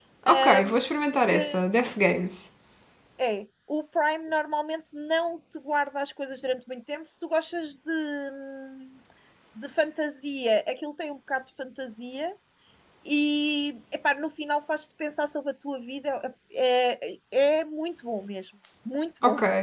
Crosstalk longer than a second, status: none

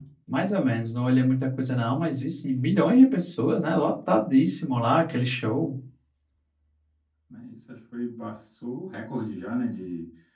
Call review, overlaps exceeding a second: none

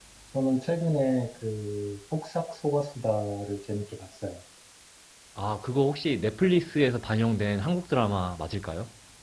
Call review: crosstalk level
none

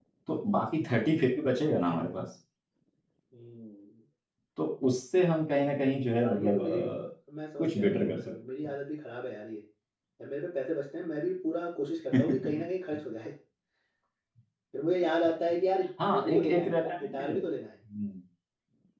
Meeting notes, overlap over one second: present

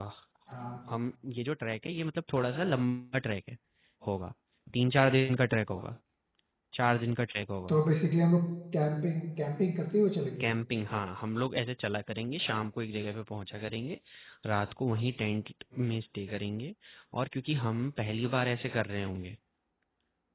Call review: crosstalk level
none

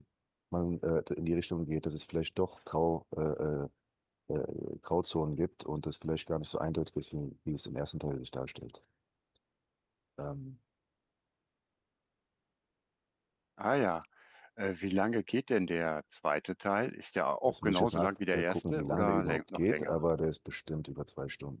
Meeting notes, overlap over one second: present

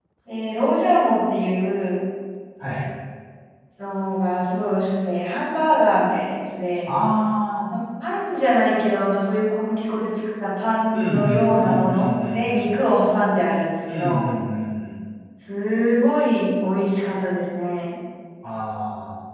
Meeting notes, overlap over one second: present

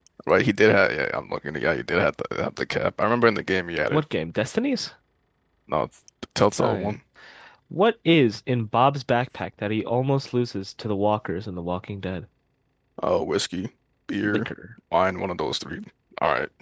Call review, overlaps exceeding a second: none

